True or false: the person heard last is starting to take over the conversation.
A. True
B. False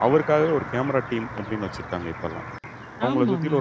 B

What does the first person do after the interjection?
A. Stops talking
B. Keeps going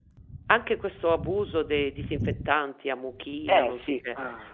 B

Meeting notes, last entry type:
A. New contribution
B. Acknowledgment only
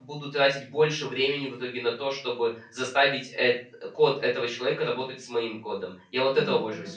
A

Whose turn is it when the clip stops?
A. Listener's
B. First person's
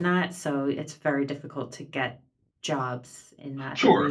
A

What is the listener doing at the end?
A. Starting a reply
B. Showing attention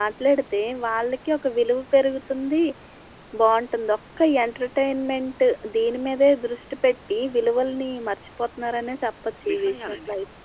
A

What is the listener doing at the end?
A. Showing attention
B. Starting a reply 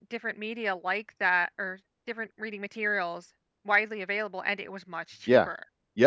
B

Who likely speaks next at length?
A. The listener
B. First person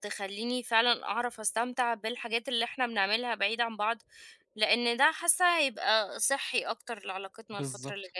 A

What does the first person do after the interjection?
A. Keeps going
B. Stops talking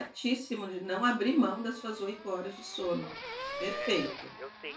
B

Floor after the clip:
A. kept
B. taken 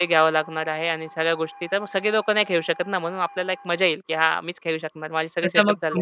B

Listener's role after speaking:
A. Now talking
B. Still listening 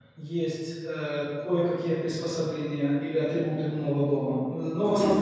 B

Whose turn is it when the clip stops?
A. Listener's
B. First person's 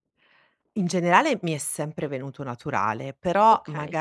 B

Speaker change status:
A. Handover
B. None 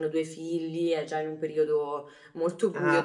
A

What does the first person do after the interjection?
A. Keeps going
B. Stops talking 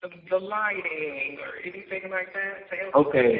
B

